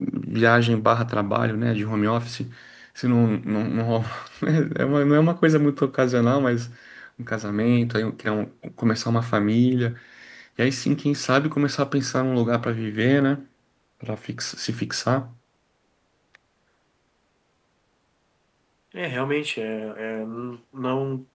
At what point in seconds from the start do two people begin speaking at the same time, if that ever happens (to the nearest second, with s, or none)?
none